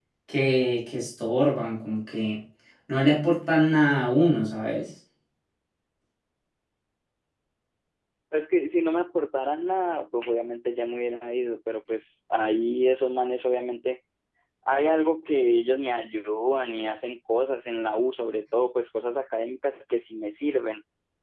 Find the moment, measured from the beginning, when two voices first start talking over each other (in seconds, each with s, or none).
none